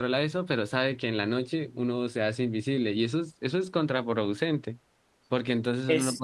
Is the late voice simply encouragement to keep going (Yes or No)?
Yes